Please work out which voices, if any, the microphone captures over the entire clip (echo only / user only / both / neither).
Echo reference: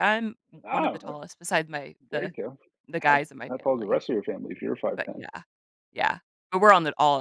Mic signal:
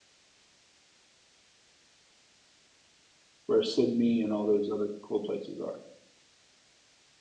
user only